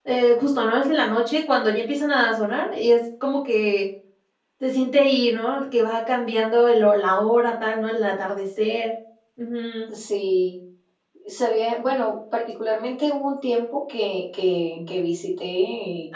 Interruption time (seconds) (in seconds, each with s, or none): none